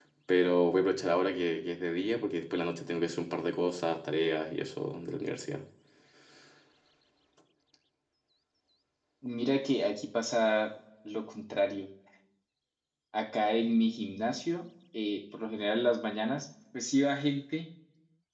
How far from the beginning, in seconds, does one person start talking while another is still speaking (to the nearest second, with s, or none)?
none